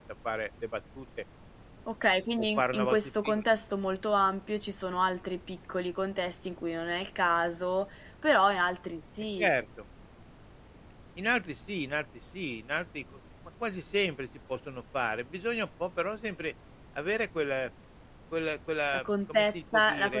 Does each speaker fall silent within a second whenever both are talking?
No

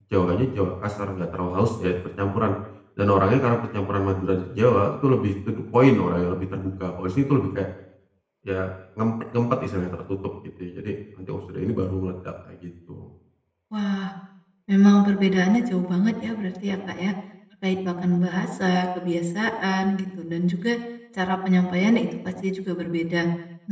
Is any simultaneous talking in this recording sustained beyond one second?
No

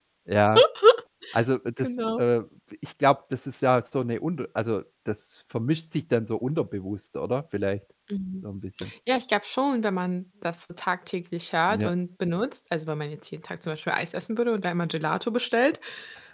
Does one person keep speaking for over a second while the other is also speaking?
No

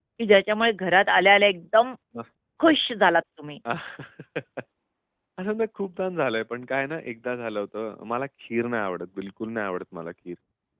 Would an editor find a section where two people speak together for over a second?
No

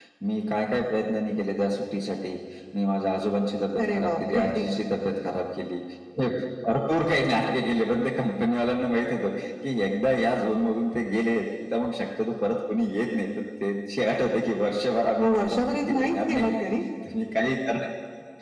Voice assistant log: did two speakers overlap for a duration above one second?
Yes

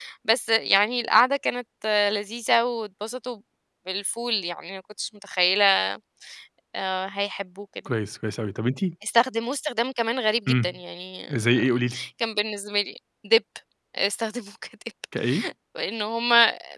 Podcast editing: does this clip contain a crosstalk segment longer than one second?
No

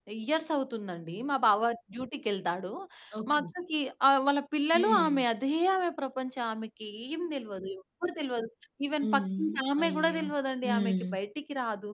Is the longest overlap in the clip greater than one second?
No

